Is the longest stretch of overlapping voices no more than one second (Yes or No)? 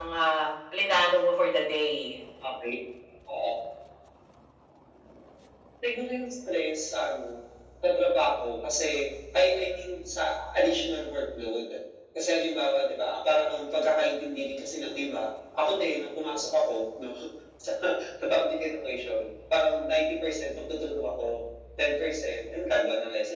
Yes